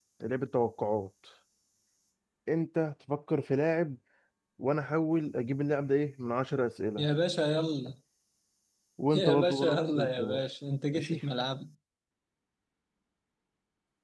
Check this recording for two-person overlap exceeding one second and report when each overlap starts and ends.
9.2-10.4

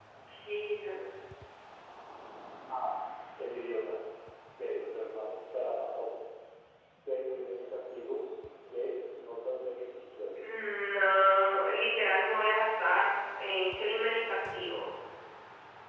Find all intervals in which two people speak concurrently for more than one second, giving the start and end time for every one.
none

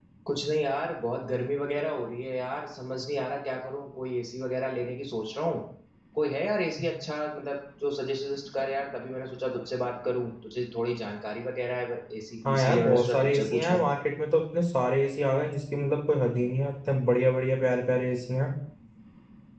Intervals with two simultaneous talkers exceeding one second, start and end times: 12.4-13.8

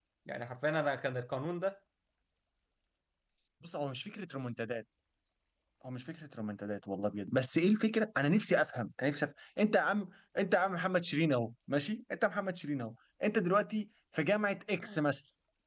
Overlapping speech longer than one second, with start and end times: none

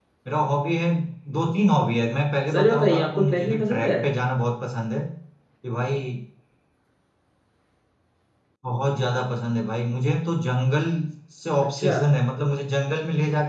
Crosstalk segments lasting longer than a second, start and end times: 2.5-3.9

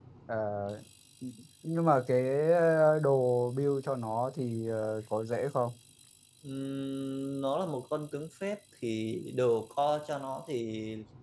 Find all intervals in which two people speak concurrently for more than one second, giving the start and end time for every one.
none

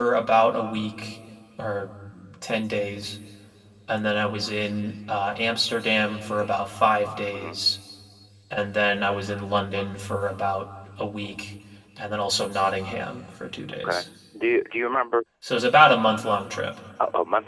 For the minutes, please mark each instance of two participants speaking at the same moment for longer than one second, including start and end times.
none

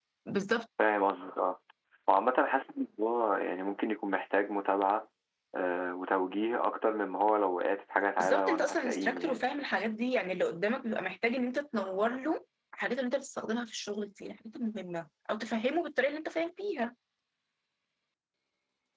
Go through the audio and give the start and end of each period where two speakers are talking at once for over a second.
8.2-9.5

